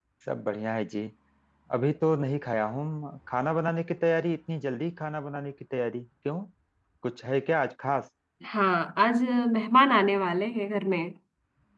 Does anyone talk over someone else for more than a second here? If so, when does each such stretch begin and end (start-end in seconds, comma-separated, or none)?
none